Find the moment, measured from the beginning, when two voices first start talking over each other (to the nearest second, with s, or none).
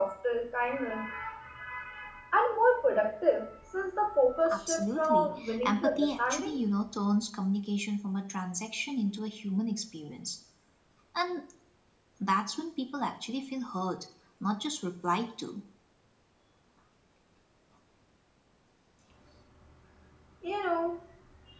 4 s